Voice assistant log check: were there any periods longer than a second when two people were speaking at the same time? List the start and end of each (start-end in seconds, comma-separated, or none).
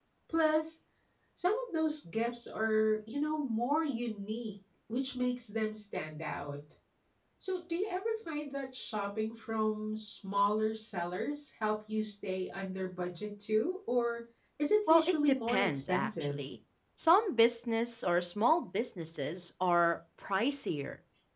14.9-16.4